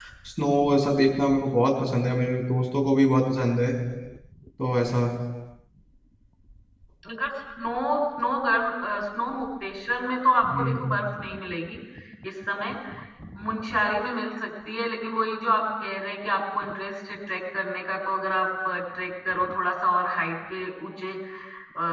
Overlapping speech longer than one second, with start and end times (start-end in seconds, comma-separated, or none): none